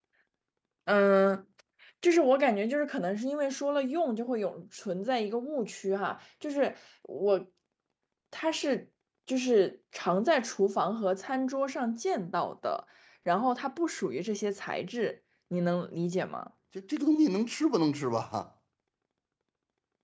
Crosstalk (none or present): none